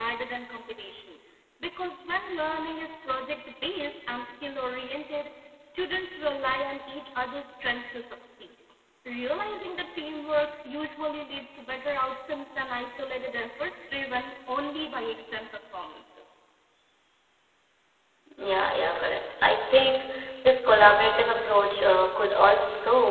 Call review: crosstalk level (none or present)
none